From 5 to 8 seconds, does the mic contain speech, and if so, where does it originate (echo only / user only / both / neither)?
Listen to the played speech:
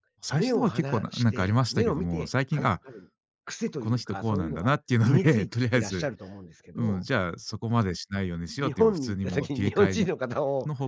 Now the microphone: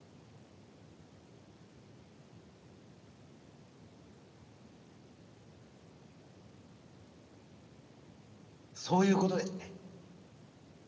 neither